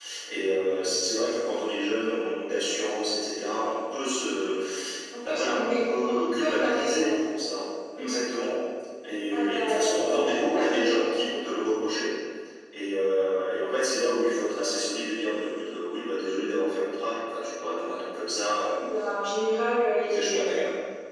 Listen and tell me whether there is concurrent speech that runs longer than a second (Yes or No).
Yes